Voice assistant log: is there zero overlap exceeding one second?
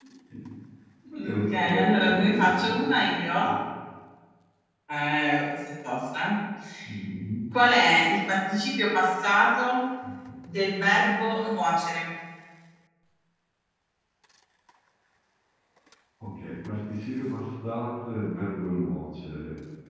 No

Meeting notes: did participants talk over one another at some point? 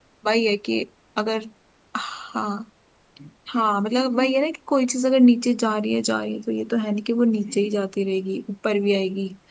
No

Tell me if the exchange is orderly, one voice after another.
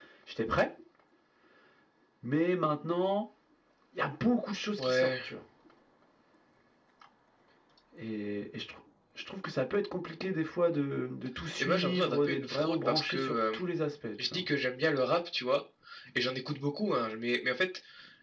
No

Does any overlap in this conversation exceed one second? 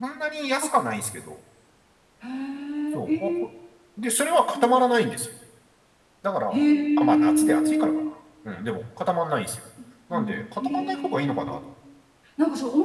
Yes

